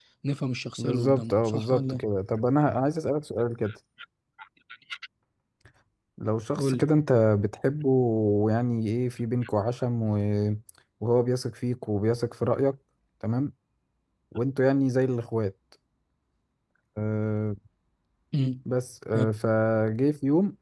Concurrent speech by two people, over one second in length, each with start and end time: 0.8-2.0

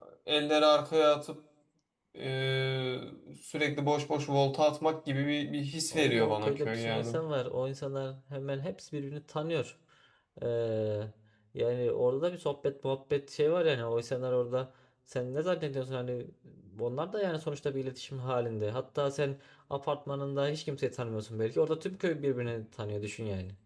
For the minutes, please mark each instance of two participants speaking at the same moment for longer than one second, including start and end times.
5.9-7.2

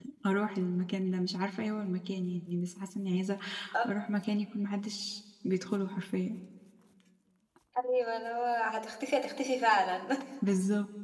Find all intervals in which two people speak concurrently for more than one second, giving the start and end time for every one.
none

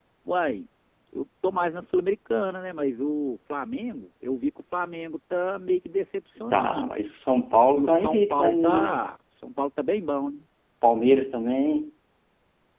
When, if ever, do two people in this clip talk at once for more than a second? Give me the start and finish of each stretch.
7.8-9.0

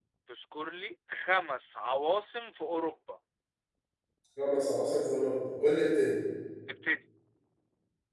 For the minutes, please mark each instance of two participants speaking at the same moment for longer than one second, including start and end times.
none

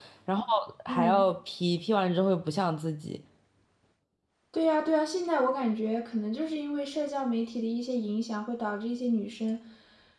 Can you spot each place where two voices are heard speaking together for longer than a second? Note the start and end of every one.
none

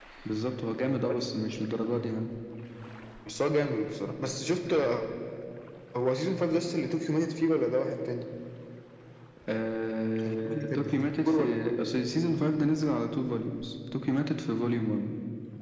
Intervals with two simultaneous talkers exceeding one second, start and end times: 10.2-11.8

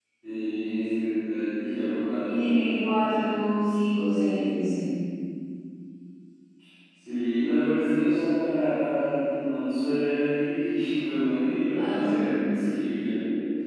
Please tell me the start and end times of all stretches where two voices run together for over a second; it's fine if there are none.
none

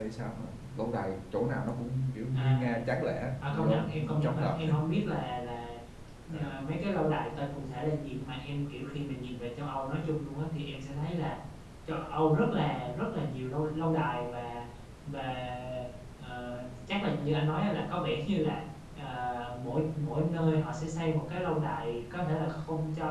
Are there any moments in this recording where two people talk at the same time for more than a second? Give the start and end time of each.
3.4-4.6

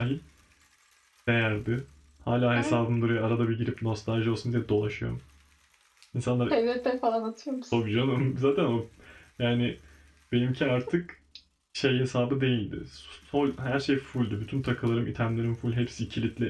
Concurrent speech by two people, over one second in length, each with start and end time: none

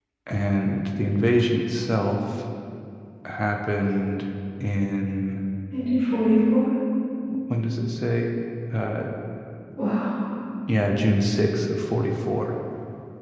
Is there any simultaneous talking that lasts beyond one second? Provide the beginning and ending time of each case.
none

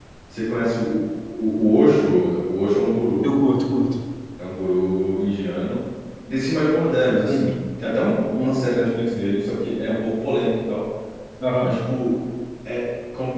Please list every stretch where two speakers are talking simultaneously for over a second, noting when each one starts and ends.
none

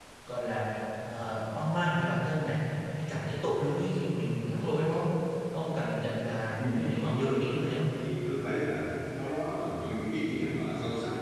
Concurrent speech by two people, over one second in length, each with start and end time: 6.6-7.8

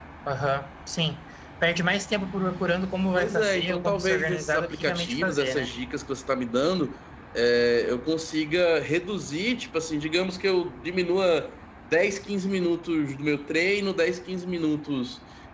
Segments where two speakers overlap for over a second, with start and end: 3.1-5.7

